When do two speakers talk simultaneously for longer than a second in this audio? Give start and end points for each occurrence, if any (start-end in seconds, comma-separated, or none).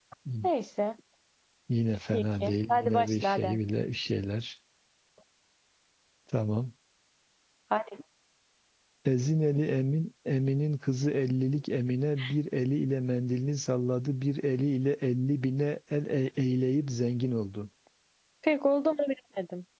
2.1-3.6